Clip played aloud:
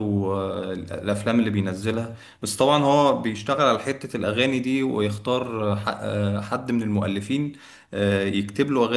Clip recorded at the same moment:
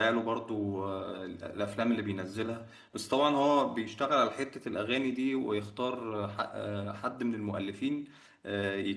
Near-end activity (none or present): none